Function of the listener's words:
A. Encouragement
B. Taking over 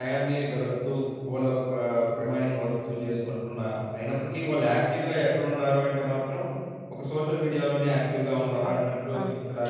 B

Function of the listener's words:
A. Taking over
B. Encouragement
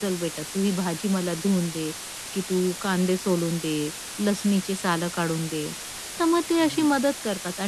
B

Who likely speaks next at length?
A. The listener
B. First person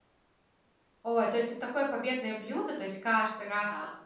B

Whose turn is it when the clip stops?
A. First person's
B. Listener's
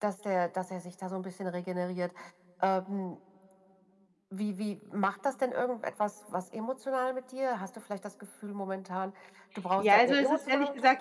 B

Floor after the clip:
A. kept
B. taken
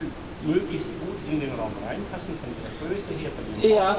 B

